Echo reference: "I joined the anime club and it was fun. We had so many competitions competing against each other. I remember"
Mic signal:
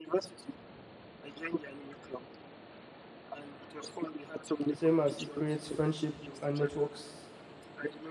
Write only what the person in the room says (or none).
same as it creates friendship and networks